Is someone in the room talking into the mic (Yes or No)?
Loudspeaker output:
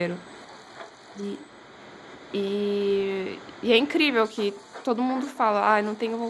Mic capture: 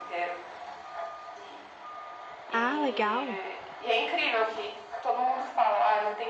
Yes